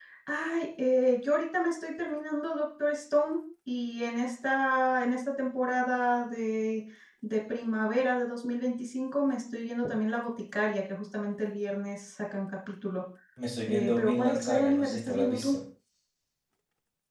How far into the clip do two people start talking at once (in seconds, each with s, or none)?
13.7 s